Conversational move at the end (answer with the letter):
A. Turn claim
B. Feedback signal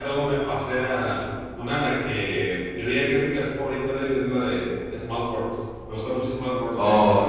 A